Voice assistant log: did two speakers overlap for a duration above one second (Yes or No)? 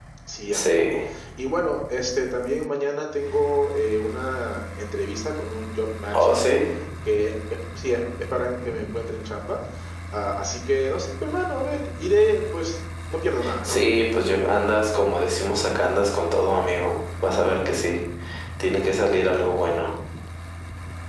No